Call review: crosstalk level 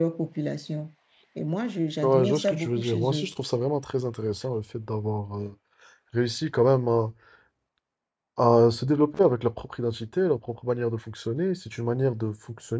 present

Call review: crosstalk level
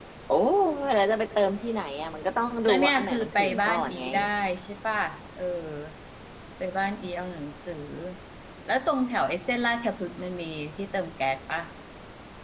present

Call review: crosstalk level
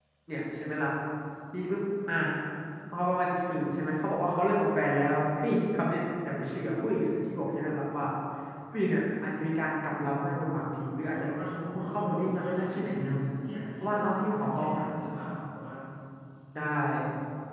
present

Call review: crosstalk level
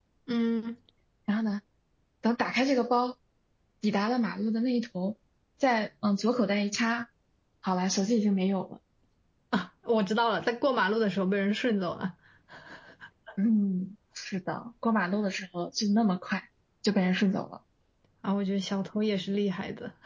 none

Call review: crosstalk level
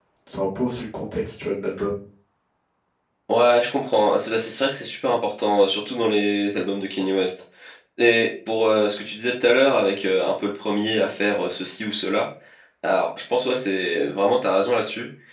none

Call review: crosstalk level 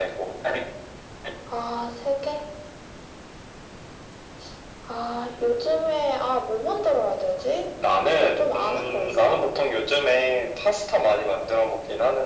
present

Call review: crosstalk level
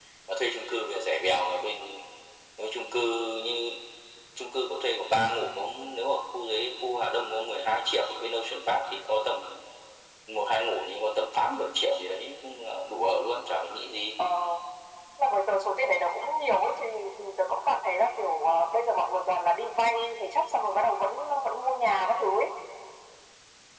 none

